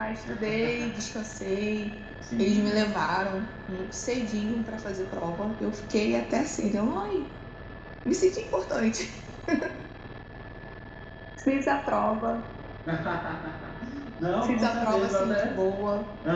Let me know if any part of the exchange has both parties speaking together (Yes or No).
Yes